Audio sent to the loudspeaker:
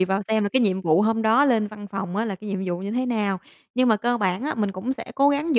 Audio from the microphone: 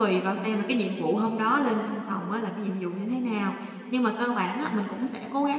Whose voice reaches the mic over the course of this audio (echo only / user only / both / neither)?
echo only